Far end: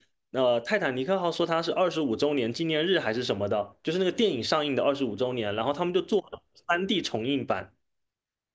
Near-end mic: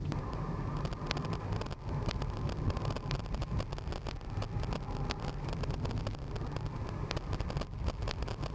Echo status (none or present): none